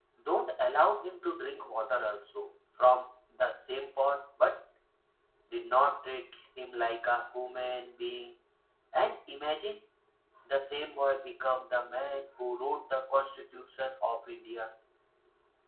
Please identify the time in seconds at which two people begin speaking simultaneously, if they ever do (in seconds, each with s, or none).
none